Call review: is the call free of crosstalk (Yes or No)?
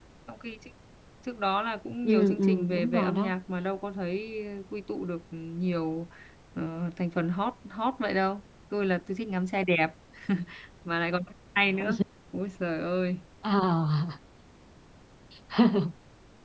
No